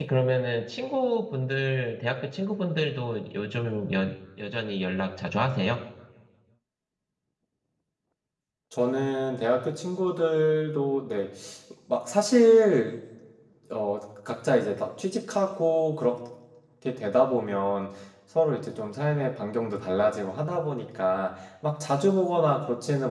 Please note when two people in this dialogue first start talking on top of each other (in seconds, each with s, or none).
none